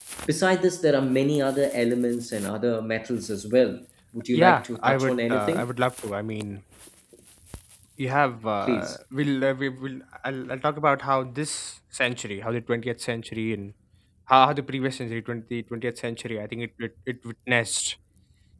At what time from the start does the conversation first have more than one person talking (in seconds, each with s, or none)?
4.3 s